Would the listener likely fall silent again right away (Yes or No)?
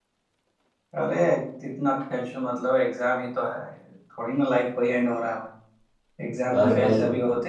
Yes